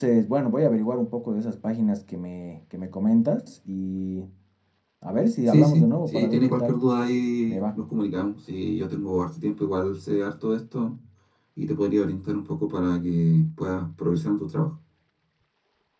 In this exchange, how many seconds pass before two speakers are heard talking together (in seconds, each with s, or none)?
5.5 s